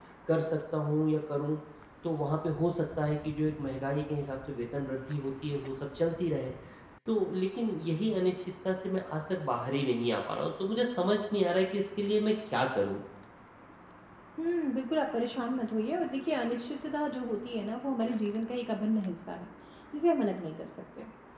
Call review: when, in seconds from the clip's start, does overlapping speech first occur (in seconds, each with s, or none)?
none